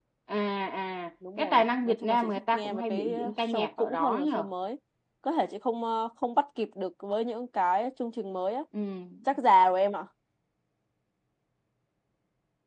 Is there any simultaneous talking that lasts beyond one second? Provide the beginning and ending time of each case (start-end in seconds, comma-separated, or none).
1.4-4.5